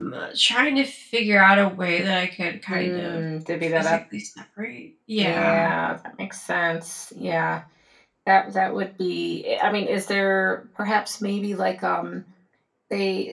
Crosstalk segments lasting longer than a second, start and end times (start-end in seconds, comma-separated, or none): none